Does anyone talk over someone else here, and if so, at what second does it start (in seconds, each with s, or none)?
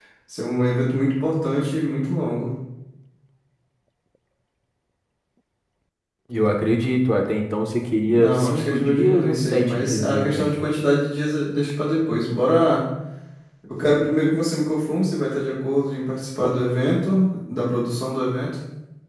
8.1 s